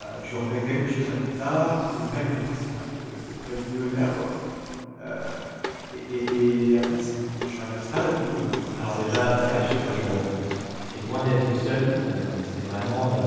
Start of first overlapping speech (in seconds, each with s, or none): 8.7 s